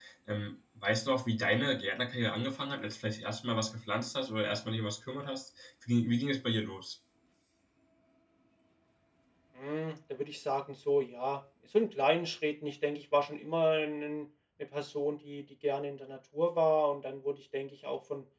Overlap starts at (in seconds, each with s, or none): none